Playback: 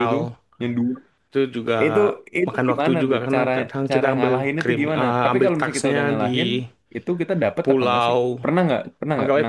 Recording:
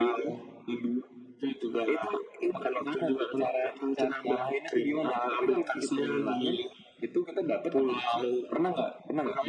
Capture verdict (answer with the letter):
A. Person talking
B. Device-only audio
B